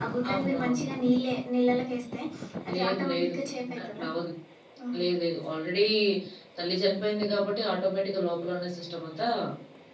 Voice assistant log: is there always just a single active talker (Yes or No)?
No